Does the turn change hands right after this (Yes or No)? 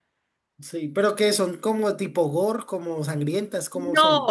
Yes